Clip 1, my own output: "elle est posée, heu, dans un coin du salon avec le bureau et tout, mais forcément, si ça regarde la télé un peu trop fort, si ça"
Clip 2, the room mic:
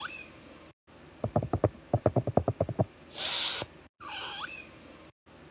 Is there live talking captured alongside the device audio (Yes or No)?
No